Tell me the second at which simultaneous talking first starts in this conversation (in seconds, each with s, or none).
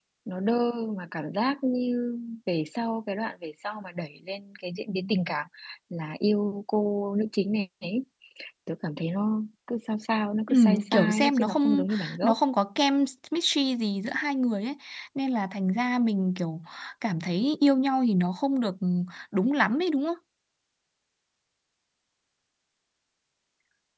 10.5 s